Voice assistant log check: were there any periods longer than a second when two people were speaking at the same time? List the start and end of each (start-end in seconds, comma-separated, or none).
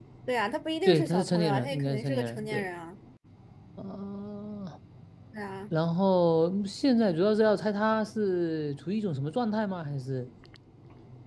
0.9-2.6